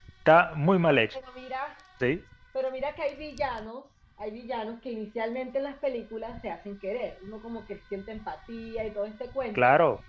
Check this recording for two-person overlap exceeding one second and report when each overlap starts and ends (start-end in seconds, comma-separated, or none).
none